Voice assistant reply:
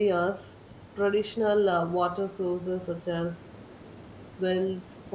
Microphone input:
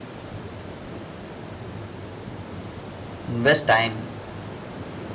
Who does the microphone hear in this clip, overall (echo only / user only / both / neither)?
user only